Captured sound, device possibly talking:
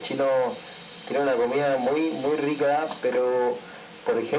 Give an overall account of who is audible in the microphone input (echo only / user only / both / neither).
echo only